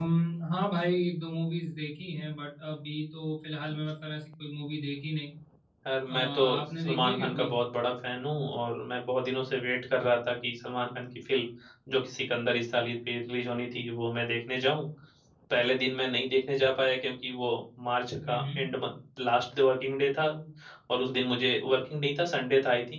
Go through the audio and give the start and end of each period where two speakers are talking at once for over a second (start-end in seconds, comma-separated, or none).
6.1-7.5